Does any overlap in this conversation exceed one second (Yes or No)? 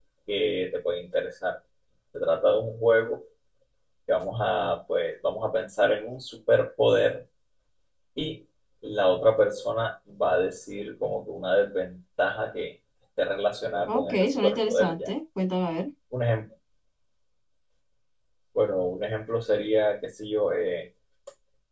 Yes